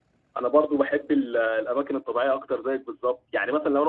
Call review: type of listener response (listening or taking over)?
listening